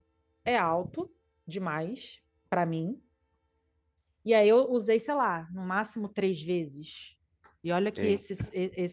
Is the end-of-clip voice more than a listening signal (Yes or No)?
No